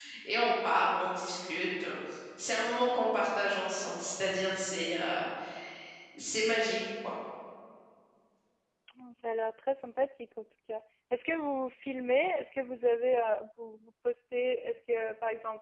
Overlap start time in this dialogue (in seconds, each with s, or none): none